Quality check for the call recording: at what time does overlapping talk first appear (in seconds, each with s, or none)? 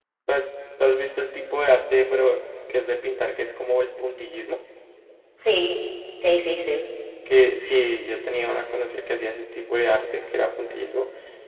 none